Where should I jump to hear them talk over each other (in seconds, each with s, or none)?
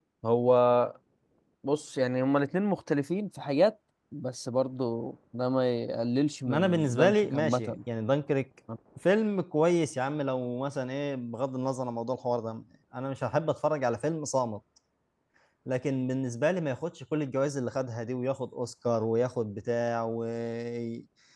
6.5 s